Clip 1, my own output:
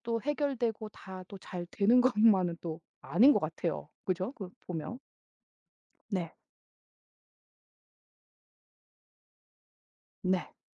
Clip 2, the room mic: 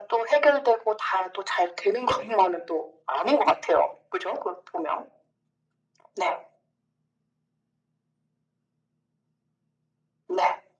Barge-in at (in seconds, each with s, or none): none